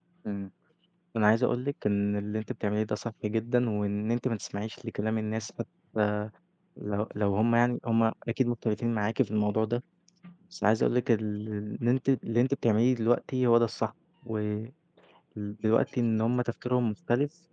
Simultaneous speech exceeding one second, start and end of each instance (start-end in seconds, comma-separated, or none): none